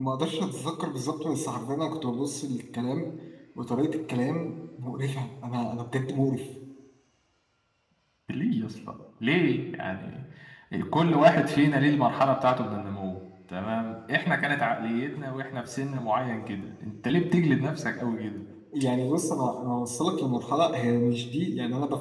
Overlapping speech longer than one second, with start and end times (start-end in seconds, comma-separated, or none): none